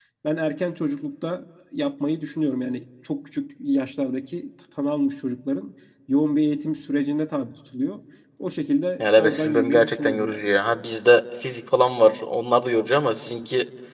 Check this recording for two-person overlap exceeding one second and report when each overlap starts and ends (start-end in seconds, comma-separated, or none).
9.0-10.5